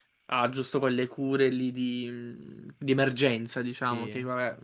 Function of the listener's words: listening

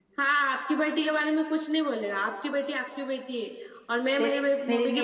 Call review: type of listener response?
taking over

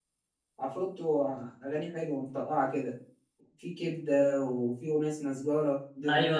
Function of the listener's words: taking over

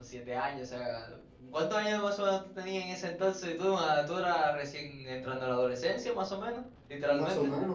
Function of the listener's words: taking over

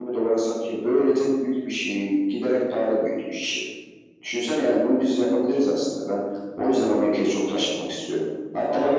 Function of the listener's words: listening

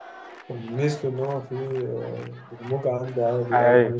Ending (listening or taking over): taking over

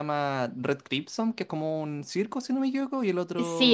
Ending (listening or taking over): taking over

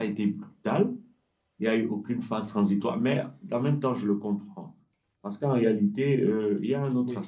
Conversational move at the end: listening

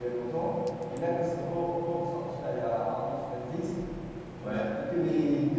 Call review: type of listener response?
listening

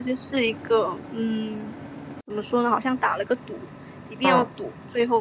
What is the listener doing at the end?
listening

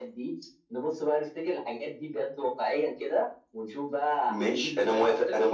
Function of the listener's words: taking over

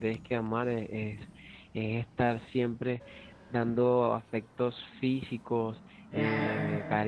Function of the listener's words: listening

